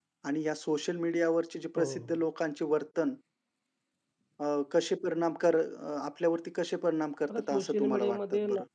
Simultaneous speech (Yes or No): Yes